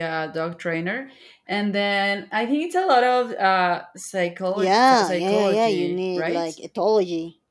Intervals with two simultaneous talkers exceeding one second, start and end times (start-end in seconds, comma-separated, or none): 4.5-6.4